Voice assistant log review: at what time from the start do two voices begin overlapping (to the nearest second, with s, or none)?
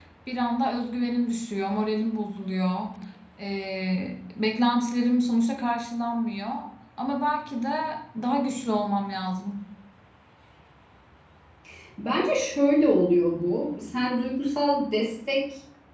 none